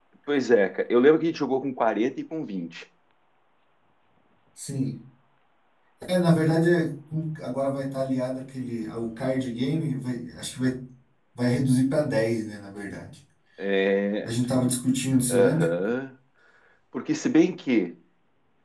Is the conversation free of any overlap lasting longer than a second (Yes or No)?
Yes